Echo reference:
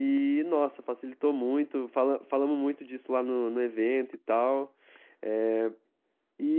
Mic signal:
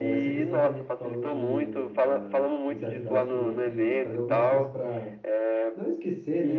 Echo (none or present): present